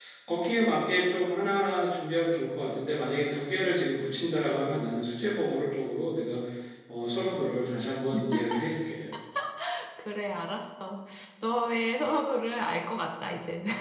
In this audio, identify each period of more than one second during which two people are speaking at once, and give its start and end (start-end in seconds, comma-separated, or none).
none